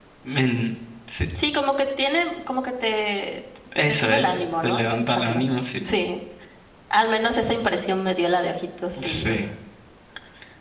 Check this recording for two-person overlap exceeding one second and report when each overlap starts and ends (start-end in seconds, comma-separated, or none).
3.9-5.4